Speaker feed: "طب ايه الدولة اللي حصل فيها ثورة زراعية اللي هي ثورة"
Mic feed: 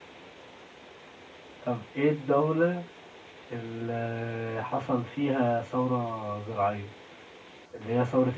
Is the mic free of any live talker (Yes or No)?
Yes